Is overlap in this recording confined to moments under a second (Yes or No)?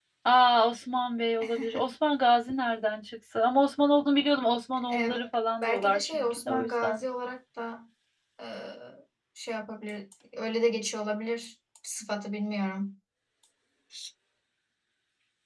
No